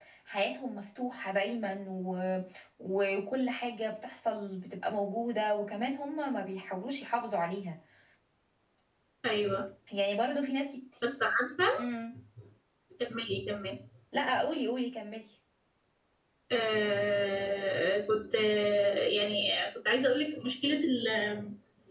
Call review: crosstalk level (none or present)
none